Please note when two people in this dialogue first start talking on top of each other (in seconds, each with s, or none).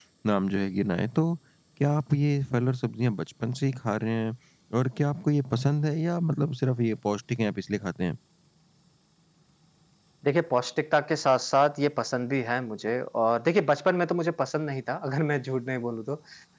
none